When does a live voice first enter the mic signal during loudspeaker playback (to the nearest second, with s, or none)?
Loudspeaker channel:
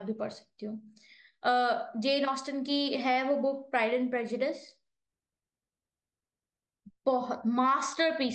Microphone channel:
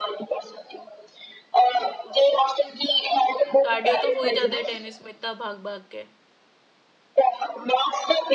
4 s